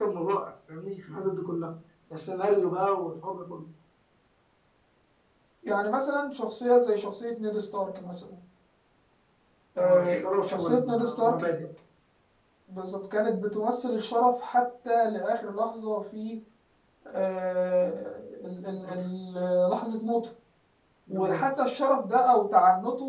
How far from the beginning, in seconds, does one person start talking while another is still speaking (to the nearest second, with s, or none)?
10 s